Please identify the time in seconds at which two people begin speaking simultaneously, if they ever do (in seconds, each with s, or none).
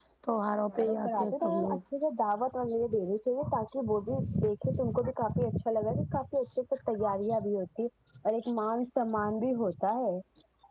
0.6 s